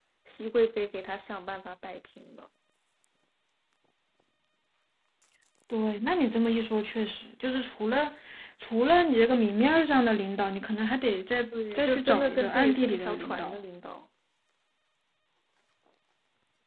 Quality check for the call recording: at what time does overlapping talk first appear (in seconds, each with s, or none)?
11.5 s